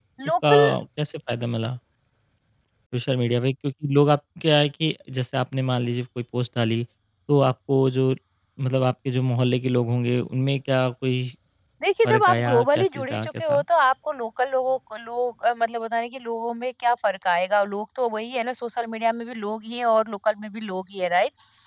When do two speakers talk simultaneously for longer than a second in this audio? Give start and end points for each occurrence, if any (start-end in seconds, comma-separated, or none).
12.1-13.6